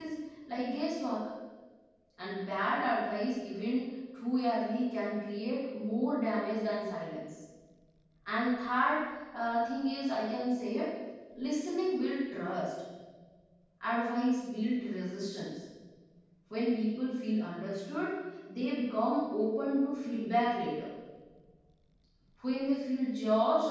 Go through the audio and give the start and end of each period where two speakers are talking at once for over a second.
none

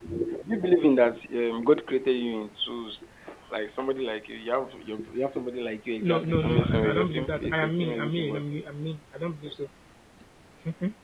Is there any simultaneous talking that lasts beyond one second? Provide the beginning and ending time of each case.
6.0-8.4

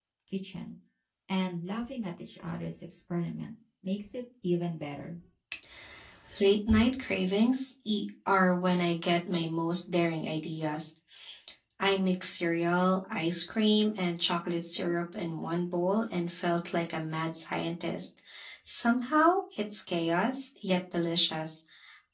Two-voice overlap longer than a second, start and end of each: none

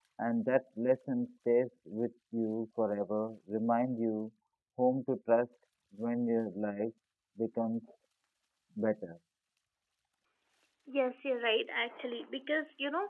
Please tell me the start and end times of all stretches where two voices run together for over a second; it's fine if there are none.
none

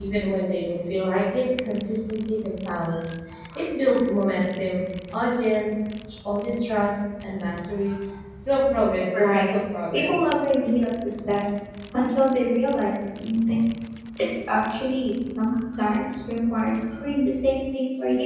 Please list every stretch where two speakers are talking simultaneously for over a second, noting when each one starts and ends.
none

